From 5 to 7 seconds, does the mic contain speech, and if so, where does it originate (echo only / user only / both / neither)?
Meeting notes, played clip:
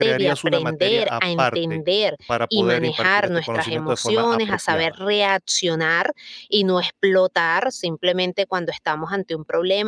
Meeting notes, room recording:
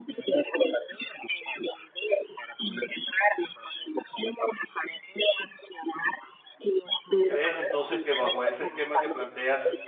echo only